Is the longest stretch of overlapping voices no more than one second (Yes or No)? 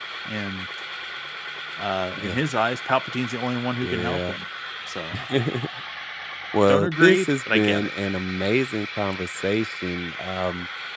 No